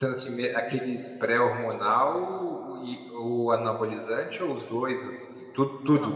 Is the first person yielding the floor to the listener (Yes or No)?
Yes